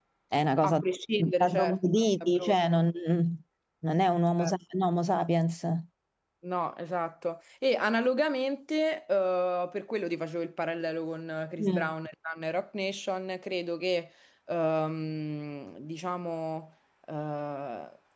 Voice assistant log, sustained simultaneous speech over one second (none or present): present